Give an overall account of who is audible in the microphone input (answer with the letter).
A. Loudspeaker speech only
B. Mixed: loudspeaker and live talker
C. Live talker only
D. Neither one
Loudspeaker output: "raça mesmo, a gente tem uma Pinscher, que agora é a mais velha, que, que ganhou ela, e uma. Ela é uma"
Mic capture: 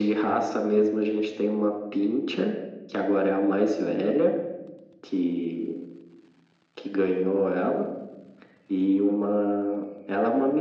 A